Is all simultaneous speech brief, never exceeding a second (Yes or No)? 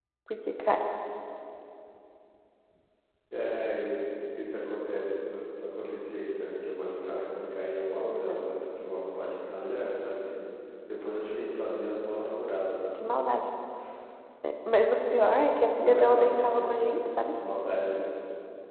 No